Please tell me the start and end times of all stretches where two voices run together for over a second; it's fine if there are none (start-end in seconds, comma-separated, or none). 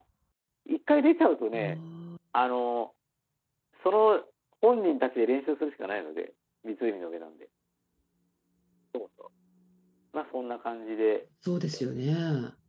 none